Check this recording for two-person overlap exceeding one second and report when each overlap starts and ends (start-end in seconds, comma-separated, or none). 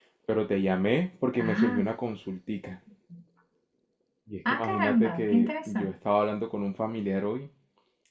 4.5-5.9